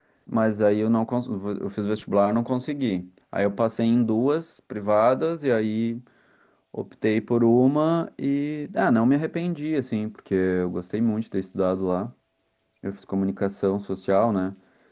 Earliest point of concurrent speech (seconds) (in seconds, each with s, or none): none